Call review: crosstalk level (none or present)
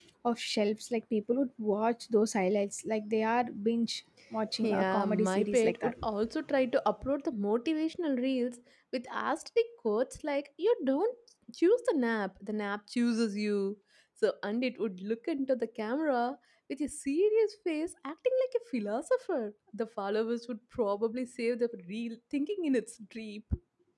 present